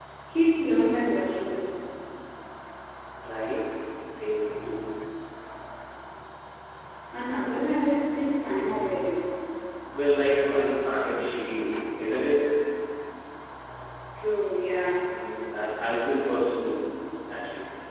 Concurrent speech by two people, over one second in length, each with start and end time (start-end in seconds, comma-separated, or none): none